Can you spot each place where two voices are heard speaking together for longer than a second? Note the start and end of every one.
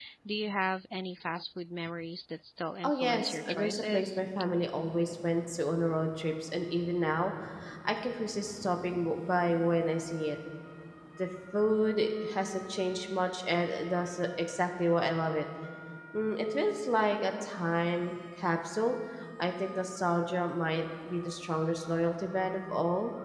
2.8-4.2

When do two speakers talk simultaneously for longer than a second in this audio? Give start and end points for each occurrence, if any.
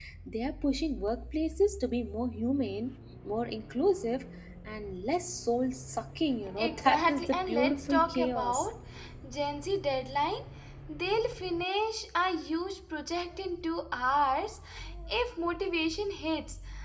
6.6-8.7

